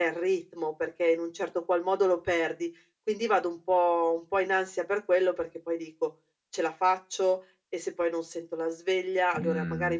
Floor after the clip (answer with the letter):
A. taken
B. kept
B